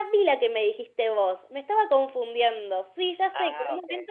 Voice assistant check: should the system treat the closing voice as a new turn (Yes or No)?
No